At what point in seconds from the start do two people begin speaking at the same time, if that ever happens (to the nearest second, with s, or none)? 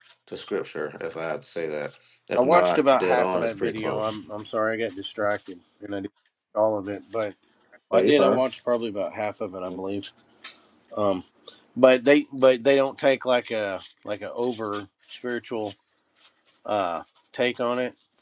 2 s